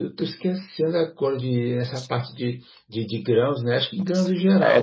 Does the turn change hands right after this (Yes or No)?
Yes